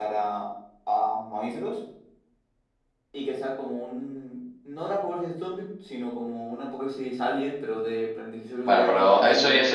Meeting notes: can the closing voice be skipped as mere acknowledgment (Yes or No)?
No